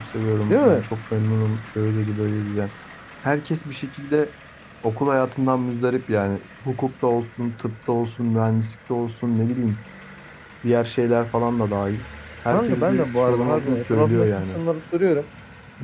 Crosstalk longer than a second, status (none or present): present